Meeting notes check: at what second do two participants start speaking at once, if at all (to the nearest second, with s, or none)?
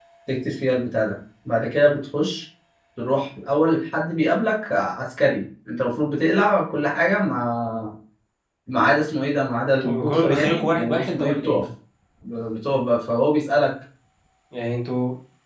10 s